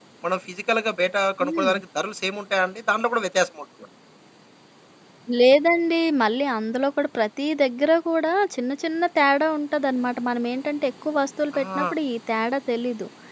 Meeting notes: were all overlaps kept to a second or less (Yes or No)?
Yes